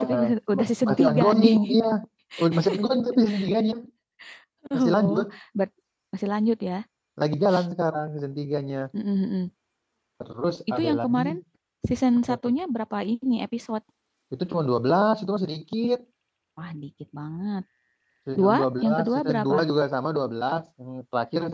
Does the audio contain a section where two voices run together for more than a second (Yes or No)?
Yes